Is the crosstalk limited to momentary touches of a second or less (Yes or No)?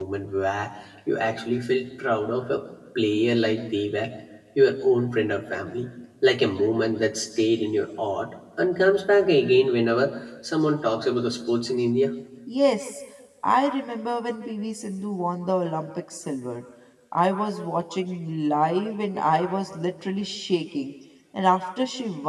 Yes